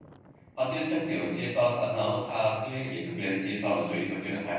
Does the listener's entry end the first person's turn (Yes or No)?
Yes